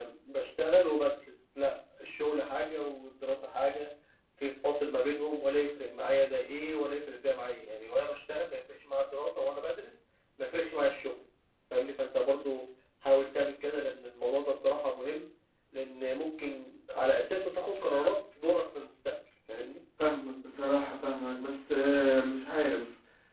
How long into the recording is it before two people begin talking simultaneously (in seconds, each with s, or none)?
none